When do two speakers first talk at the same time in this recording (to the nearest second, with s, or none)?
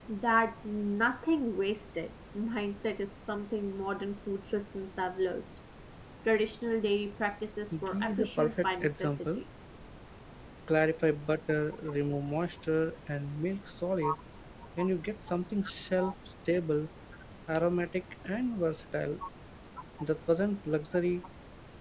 8 s